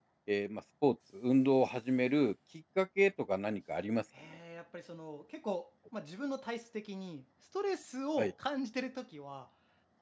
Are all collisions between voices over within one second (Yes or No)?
Yes